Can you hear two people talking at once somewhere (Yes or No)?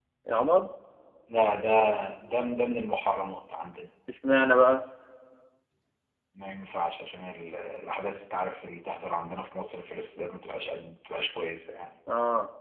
No